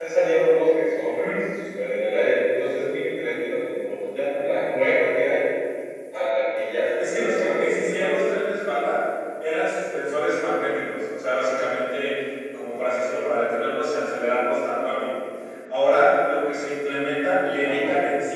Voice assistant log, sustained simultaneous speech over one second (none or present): present